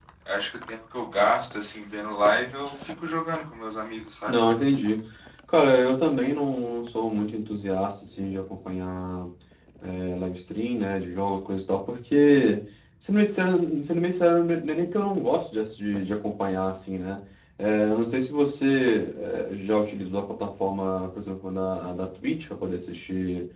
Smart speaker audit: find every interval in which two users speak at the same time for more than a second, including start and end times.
none

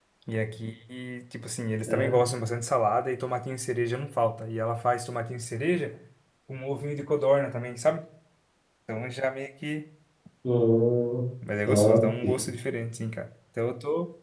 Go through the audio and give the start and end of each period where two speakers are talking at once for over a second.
none

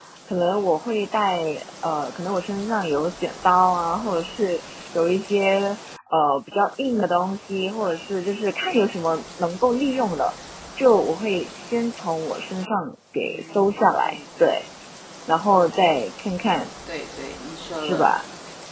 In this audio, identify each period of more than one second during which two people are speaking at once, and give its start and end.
13.1-14.5

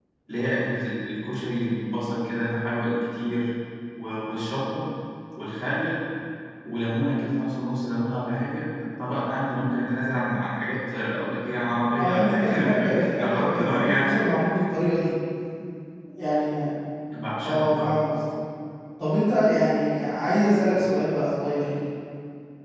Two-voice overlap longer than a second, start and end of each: 12.0-14.0

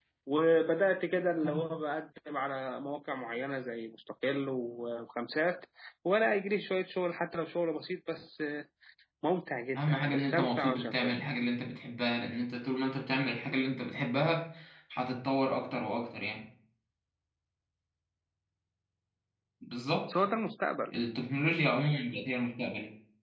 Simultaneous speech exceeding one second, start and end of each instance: 9.8-11.2

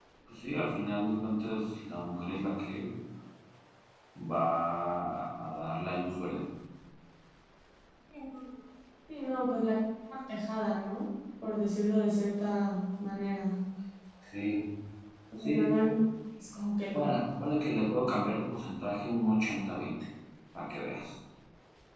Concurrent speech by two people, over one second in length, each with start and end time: none

